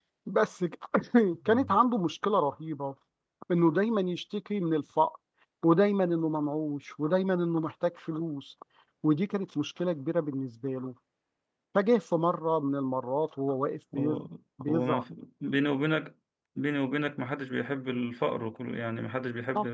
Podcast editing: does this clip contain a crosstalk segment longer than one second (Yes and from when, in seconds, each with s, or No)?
No